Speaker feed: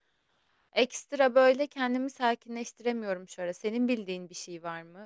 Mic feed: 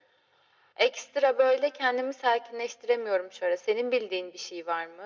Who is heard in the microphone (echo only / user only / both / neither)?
echo only